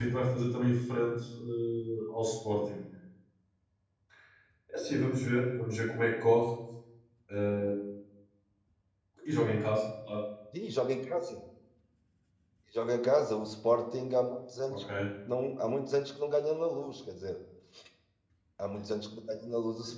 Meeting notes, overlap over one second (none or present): none